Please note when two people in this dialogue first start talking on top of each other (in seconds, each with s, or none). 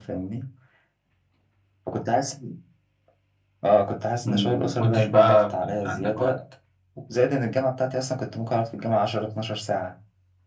4.2 s